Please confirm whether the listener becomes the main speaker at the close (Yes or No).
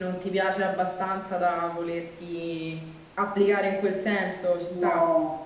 Yes